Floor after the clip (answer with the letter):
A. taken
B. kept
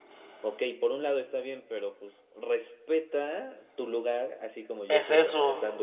A